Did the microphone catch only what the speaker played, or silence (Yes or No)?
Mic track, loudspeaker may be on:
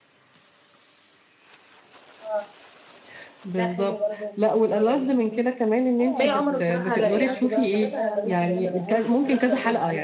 No